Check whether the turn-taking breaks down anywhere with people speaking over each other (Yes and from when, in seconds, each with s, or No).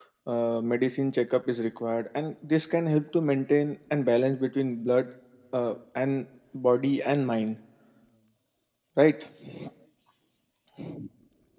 No